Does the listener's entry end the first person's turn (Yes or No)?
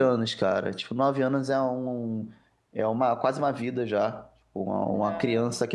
No